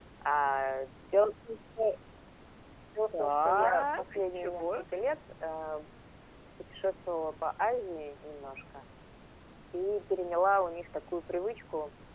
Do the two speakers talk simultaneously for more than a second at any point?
Yes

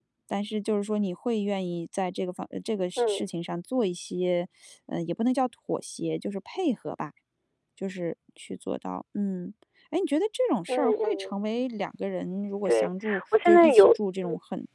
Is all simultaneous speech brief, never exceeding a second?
No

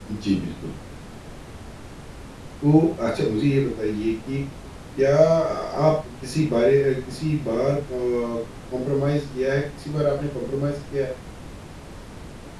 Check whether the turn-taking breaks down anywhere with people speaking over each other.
No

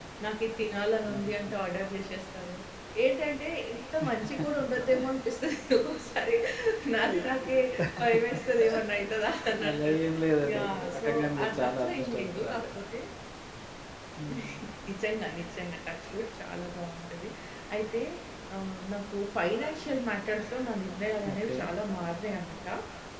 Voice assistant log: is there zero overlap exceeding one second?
No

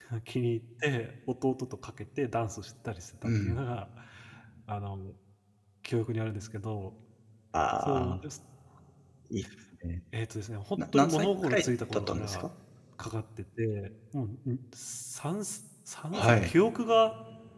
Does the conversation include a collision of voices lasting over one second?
Yes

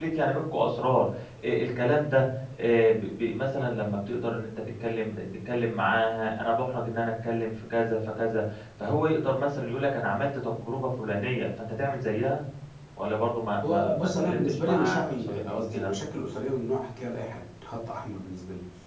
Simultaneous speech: Yes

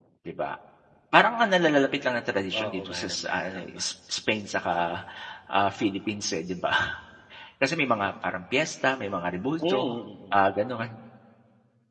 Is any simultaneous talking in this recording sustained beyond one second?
Yes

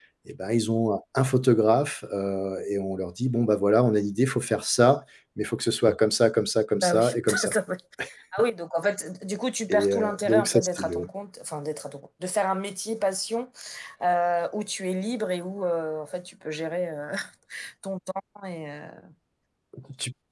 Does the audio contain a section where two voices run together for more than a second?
Yes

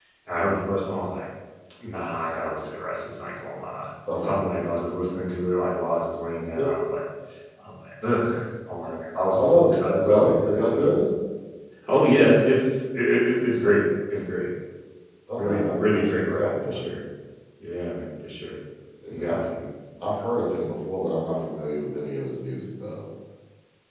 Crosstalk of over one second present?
Yes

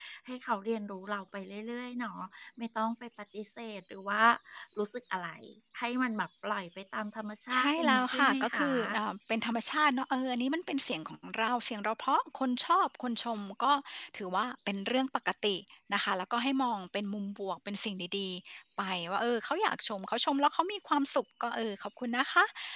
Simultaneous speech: Yes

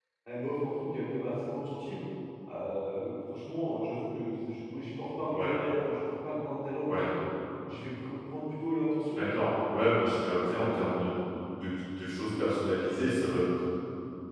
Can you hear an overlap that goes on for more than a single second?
No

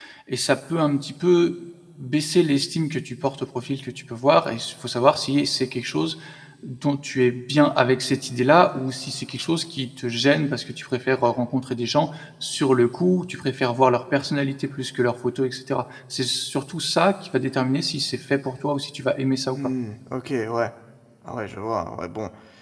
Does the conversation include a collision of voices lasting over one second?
No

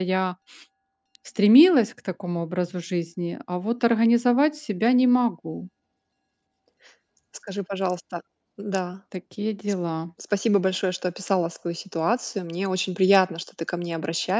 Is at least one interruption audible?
No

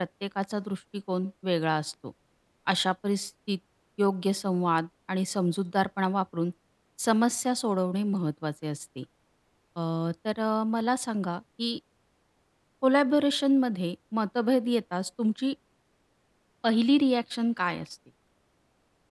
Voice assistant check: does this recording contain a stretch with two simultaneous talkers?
No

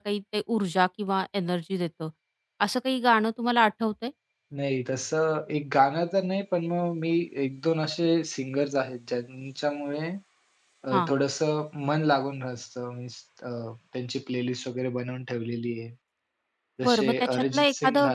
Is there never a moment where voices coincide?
No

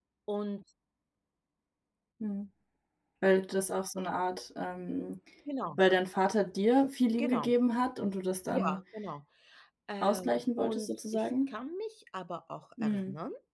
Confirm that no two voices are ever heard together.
No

